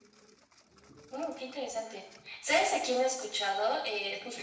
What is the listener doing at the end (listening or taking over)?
listening